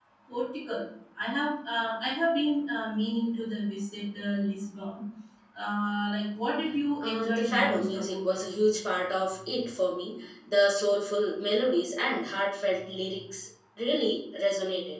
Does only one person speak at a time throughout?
No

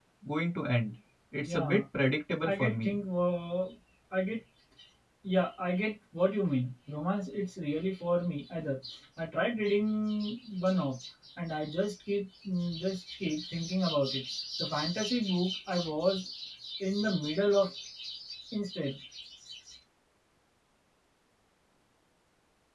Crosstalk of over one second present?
No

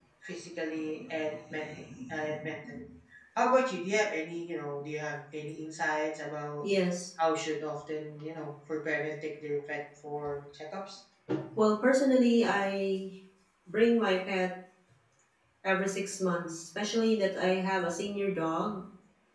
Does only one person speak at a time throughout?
Yes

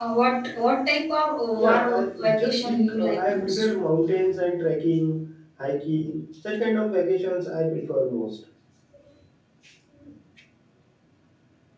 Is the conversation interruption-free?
No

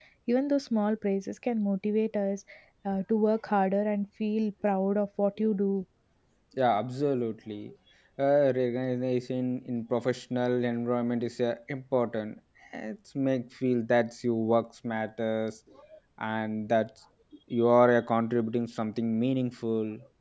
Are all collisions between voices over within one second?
Yes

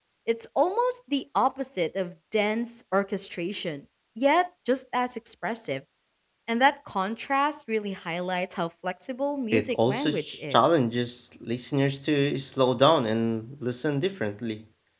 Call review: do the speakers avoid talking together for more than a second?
No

